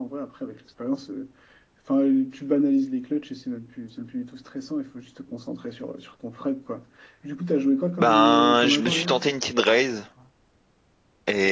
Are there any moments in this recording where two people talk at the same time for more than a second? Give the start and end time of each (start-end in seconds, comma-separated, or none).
8.0-9.2